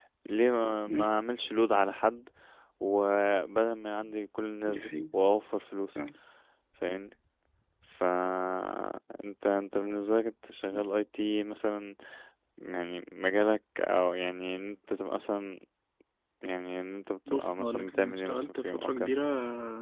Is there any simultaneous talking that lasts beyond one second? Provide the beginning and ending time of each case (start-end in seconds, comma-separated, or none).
17.3-19.1